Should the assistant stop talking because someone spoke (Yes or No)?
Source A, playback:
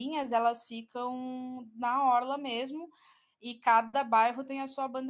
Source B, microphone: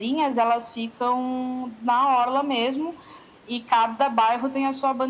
No